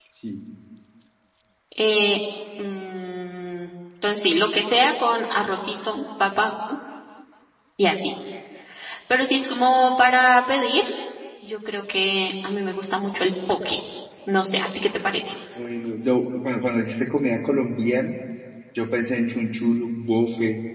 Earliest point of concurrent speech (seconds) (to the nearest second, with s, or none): none